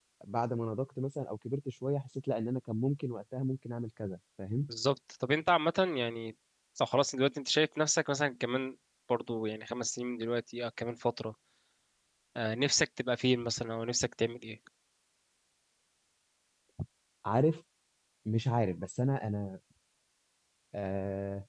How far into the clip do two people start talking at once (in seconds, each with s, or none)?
none